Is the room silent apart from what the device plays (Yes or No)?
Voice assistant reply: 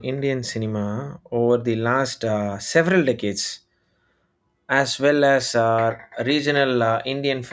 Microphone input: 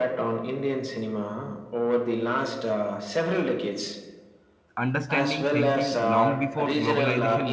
No